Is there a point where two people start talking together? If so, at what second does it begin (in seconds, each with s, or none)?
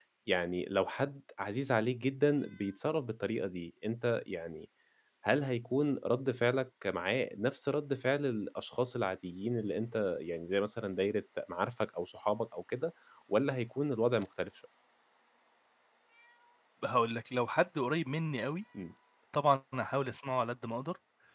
none